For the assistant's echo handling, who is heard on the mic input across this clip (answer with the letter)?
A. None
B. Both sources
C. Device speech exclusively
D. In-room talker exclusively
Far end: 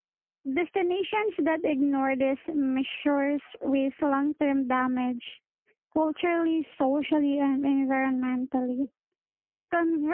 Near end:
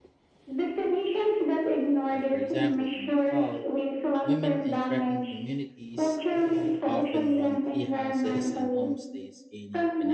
B